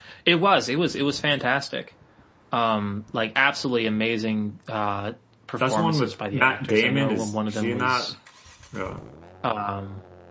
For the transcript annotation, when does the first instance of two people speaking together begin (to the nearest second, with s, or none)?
6 s